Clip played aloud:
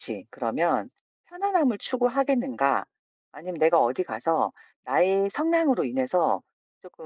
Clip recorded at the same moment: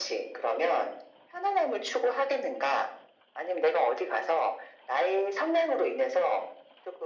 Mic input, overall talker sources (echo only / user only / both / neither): echo only